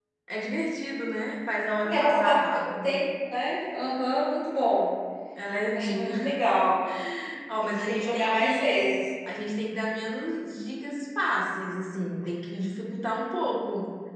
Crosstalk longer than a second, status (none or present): present